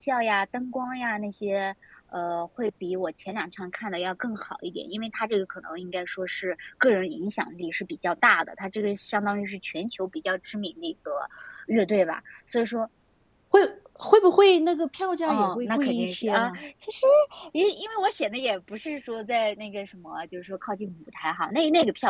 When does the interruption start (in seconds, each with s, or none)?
15.2 s